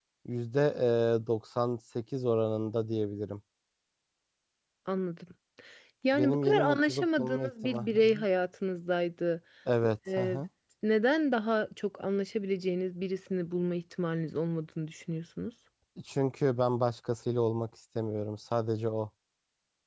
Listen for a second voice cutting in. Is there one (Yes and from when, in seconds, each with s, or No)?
Yes, from 6.1 s